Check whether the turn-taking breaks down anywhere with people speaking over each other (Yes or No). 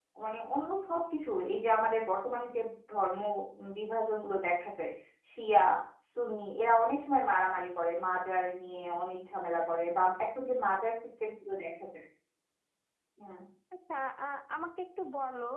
No